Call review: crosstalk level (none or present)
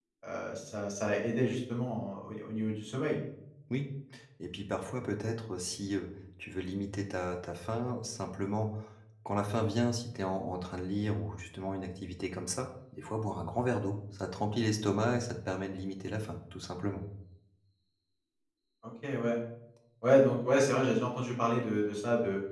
none